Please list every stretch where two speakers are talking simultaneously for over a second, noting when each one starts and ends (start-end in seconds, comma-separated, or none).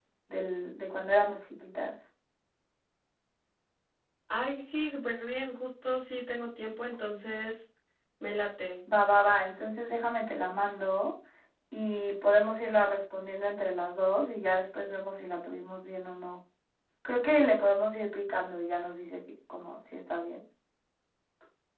none